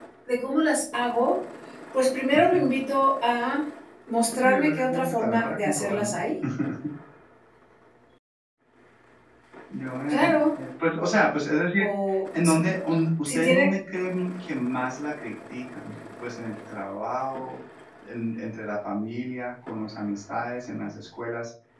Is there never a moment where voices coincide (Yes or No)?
No